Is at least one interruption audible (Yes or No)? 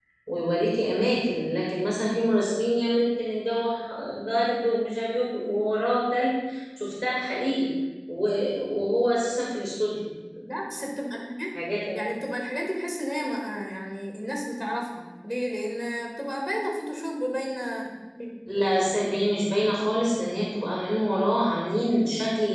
No